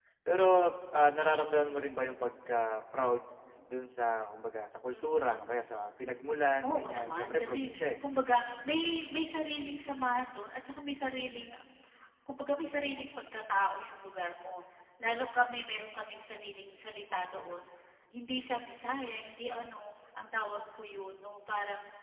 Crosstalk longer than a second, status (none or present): present